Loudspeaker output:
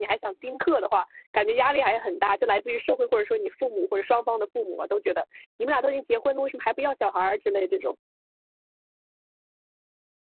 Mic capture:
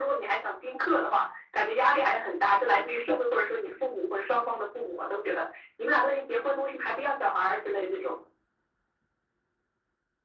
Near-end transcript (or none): none